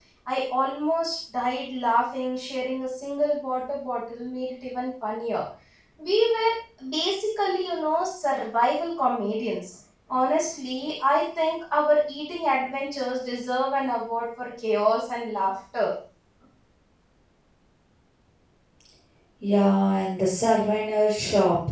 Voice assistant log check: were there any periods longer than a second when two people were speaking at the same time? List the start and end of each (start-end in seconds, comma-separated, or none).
none